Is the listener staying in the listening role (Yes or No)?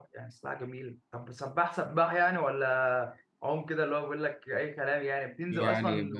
No